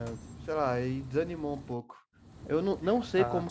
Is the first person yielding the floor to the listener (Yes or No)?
No